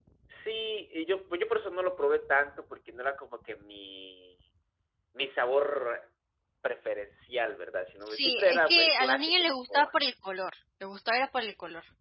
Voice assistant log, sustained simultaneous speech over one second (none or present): present